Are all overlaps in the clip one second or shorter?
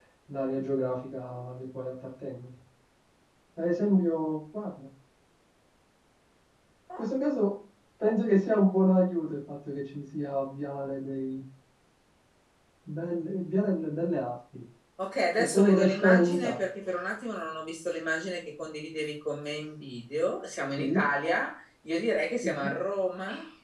No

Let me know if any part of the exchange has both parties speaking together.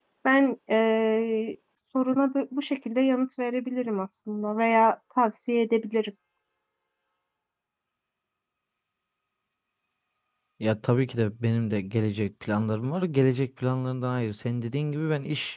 No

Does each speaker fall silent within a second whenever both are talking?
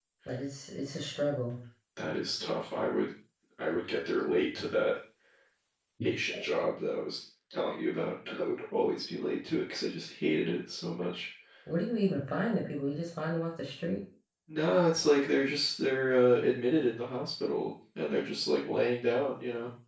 Yes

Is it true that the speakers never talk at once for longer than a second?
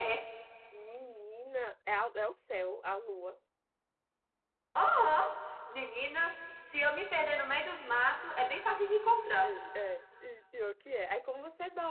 Yes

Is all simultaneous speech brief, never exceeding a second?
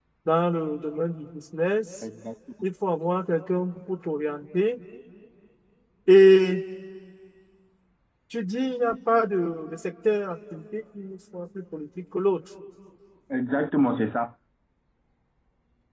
Yes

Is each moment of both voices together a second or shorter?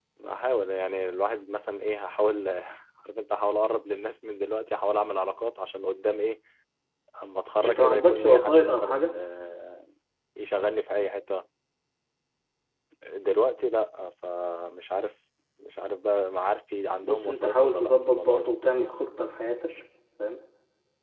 No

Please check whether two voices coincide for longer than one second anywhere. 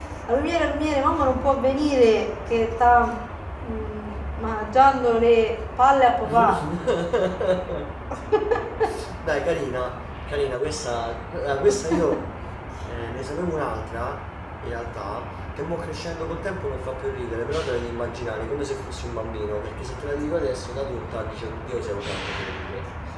No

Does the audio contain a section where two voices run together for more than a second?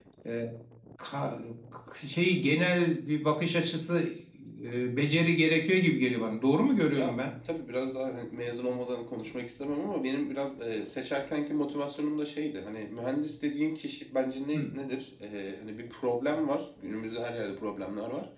No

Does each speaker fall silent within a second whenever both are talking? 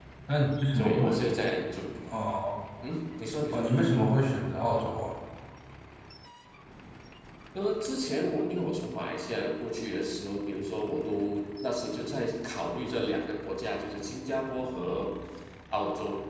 Yes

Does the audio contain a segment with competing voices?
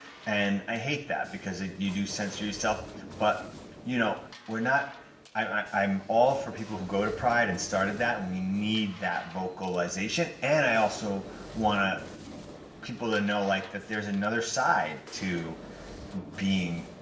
No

